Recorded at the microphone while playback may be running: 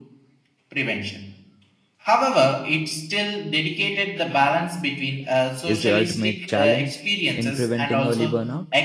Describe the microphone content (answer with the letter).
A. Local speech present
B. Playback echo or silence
A